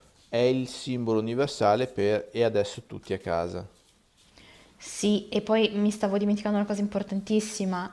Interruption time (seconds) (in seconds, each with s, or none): none